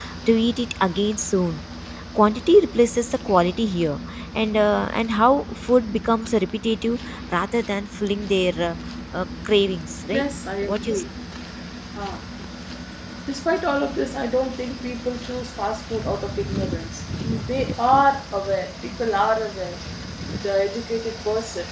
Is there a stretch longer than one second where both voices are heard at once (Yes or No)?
No